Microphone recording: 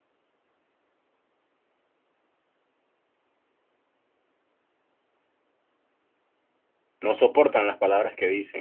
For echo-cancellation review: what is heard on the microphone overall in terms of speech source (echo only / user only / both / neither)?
user only